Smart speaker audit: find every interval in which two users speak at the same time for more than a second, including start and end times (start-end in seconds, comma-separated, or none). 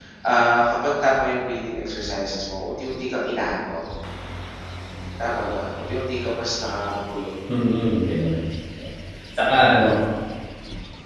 none